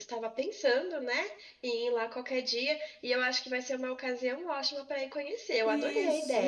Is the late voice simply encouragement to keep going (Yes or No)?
No